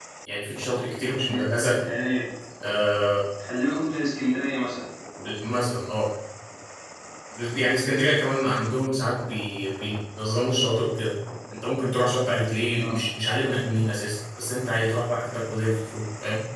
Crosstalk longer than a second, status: none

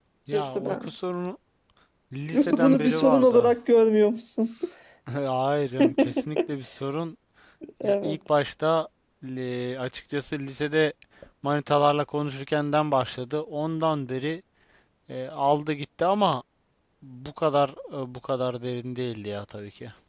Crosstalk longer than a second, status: present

